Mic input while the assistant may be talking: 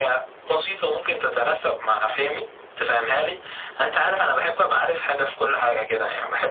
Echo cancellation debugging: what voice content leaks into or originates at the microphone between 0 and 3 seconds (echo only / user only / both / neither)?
echo only